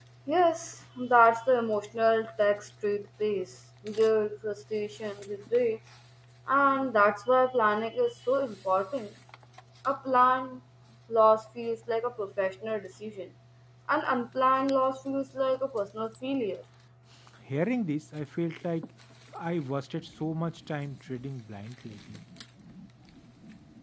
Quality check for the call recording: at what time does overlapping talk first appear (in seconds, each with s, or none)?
none